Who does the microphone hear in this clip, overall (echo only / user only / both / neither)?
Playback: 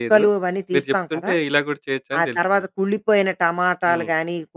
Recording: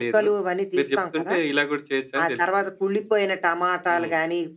echo only